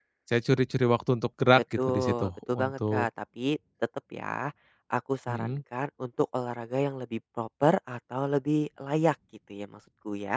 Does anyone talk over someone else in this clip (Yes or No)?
Yes